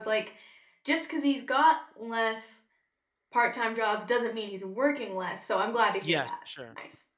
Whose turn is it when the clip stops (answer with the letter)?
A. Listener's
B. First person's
A